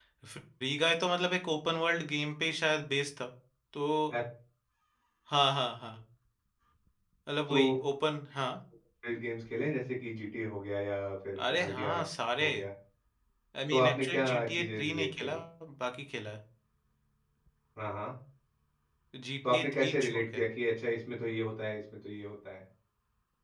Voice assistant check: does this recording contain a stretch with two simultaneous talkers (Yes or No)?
Yes